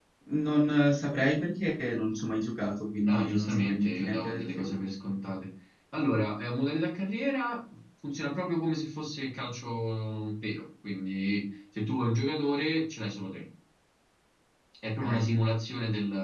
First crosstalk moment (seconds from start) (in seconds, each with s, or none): 3.1 s